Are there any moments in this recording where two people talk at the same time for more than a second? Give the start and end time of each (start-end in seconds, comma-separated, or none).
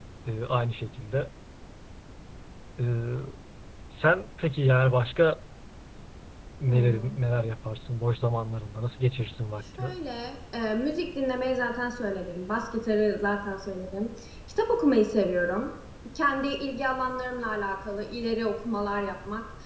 none